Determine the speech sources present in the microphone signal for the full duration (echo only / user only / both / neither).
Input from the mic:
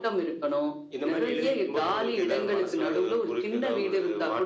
echo only